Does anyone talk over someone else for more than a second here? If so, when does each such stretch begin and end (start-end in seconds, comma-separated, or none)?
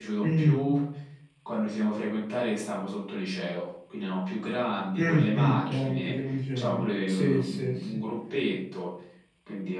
5.0-8.0